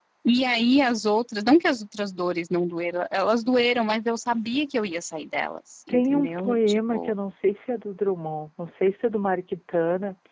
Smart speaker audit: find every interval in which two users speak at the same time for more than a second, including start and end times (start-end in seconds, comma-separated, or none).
5.9-7.1